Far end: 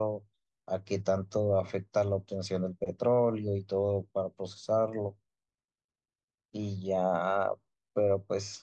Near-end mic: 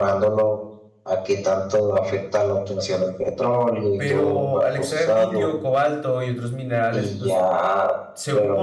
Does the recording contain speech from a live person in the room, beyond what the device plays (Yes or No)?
Yes